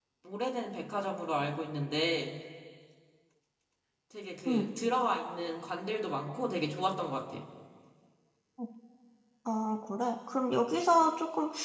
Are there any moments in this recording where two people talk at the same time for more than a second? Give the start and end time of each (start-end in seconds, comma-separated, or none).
none